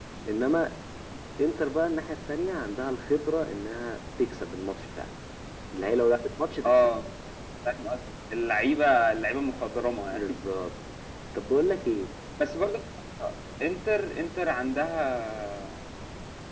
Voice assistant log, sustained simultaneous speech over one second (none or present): none